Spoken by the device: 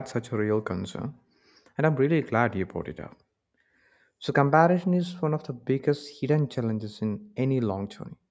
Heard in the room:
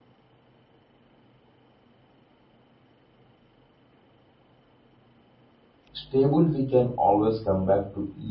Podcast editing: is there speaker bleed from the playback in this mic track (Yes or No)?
No